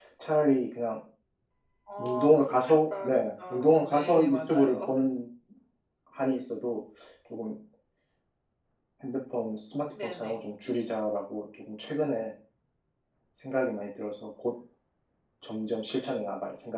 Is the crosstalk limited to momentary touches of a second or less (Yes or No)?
No